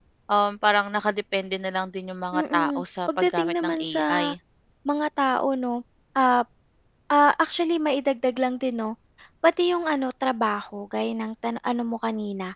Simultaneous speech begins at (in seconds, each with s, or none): 2.3 s